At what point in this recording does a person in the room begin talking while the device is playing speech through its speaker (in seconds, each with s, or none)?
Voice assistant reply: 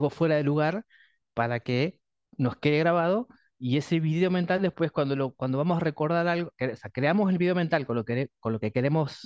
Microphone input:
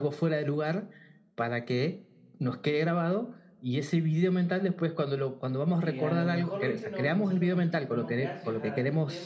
5.8 s